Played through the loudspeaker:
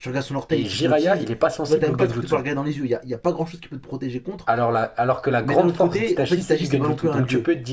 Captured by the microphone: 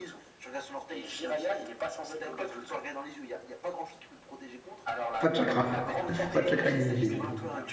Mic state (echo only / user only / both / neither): both